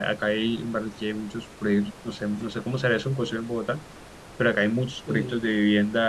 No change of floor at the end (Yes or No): Yes